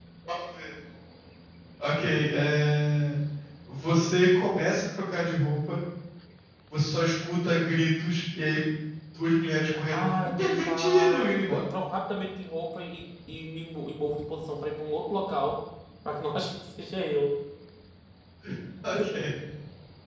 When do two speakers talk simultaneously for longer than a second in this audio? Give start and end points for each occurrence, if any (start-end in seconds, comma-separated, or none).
9.9-11.6